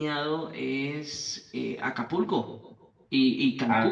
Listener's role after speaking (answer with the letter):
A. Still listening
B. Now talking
A